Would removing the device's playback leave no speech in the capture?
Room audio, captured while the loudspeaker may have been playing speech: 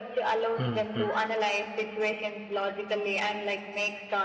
No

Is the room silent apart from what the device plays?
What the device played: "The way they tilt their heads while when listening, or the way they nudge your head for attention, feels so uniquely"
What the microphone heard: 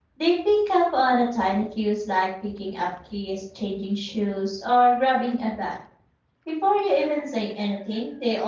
No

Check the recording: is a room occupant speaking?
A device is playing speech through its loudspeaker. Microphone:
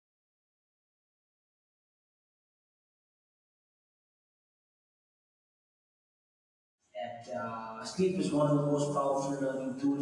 Yes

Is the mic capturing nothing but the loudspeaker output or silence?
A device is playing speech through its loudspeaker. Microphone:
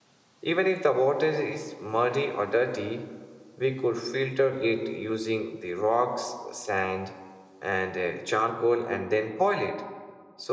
No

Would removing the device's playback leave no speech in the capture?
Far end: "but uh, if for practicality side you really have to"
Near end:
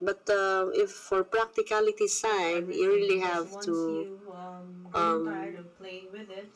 No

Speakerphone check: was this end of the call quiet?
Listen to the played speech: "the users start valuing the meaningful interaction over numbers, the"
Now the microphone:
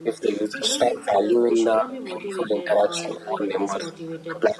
No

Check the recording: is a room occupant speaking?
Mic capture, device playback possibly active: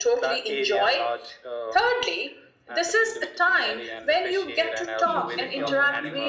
Yes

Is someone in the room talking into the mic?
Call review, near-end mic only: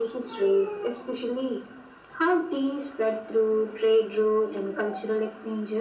No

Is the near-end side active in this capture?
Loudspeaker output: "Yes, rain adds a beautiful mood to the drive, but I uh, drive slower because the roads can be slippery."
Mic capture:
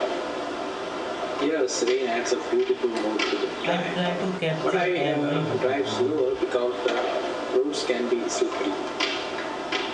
Yes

